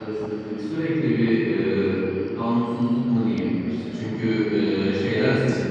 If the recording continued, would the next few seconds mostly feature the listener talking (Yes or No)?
No